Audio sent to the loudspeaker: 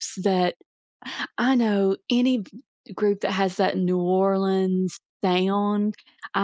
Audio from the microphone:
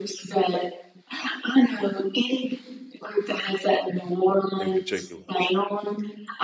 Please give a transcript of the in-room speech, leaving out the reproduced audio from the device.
in particular?

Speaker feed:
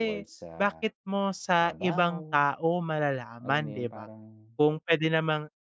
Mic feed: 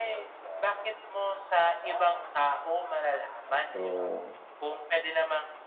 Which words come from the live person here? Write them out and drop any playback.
So

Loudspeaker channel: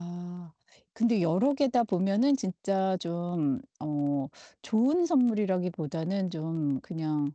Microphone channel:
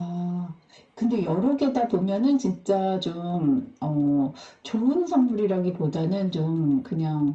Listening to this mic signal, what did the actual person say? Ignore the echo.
none

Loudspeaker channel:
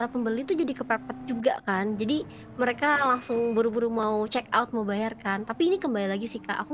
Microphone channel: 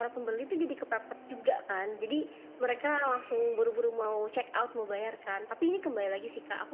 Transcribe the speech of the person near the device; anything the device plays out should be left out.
none

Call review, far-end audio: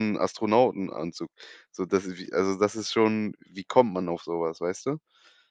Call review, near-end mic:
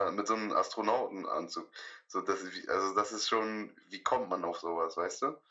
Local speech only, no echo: none

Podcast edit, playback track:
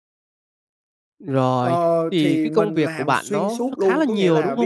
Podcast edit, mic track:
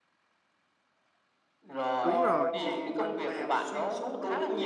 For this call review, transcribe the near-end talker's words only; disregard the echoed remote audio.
Đúng rồi!

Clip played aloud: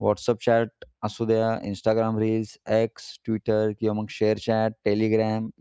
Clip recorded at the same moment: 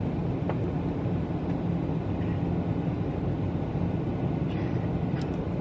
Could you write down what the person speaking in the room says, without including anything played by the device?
none

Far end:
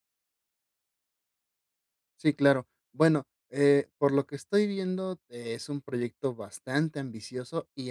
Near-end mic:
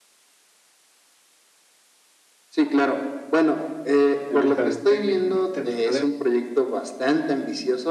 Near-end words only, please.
De mercadotecnia, ujú, de mercadeo.

